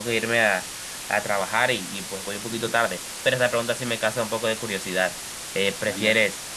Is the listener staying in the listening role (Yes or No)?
Yes